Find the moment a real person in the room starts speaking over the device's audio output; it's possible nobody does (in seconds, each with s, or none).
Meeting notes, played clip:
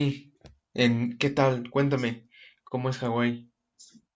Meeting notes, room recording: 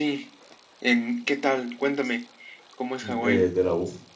3.0 s